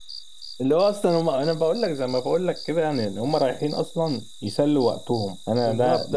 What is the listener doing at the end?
taking over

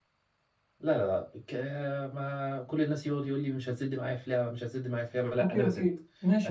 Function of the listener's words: taking over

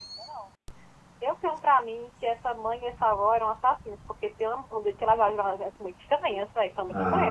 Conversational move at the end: taking over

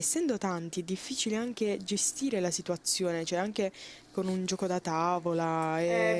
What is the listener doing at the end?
taking over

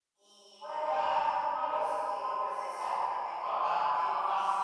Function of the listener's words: taking over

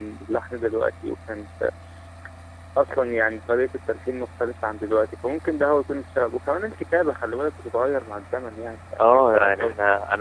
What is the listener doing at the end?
taking over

